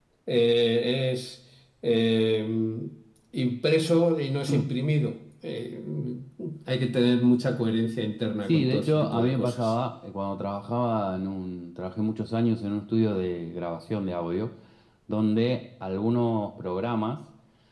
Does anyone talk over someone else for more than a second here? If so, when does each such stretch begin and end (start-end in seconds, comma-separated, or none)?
8.5-9.8